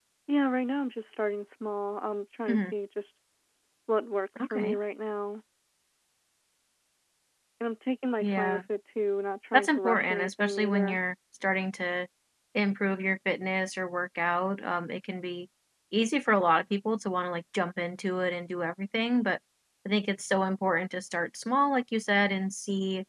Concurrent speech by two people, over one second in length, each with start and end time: 9.5-11.0

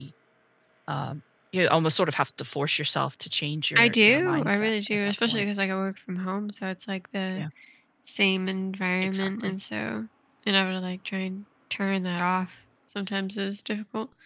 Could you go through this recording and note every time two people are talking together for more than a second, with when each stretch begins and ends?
3.8-5.5

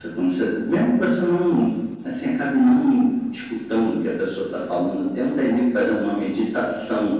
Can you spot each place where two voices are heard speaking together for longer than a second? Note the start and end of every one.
none

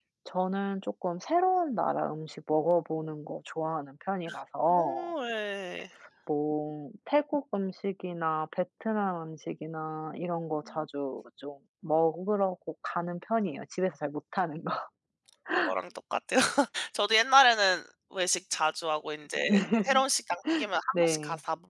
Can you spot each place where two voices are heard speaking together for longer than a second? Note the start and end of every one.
none

